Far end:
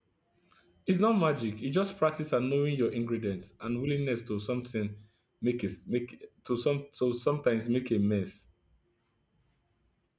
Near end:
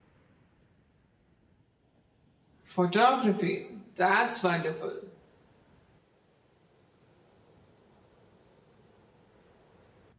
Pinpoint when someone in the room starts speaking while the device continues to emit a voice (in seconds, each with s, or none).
2.6 s